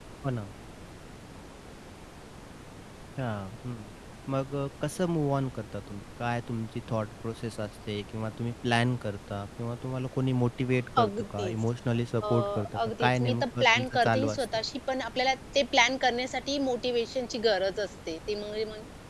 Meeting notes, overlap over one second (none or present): present